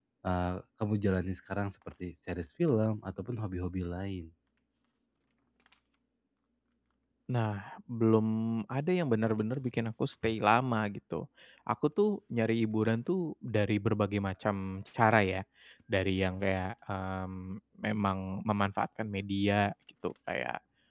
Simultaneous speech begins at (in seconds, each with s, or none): none